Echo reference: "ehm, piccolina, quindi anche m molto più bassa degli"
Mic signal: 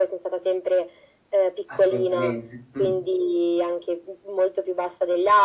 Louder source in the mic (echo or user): echo